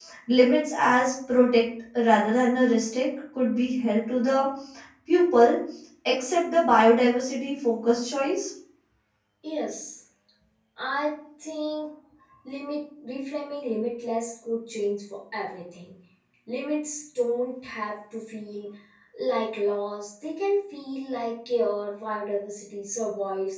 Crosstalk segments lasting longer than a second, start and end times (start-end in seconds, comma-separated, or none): none